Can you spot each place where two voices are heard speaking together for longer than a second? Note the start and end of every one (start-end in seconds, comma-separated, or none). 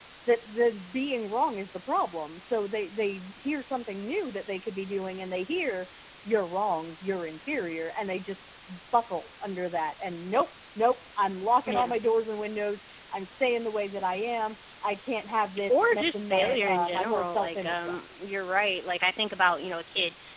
15.7-18.0